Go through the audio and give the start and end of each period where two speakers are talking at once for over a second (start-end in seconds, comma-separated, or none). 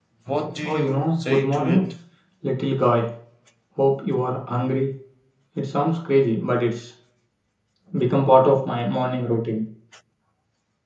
0.6-1.8